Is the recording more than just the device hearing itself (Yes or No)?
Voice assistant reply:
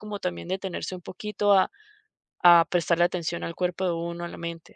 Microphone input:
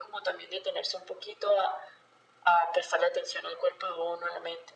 No